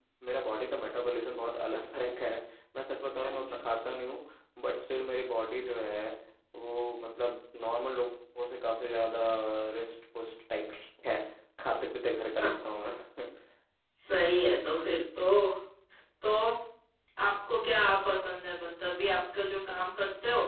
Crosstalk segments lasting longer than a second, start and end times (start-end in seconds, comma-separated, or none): none